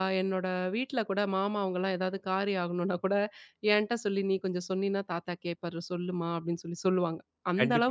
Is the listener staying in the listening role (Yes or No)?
No